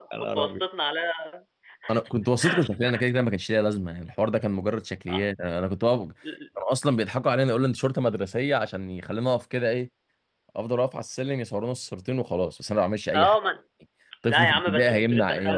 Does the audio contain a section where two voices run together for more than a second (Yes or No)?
Yes